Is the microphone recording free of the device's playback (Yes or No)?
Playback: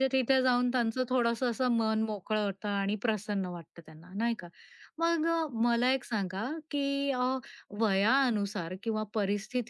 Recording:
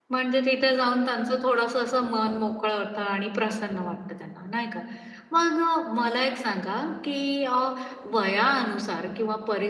No